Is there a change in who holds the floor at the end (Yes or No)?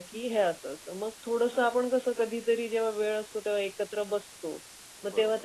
No